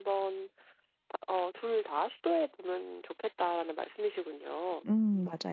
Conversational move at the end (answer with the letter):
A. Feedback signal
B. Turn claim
B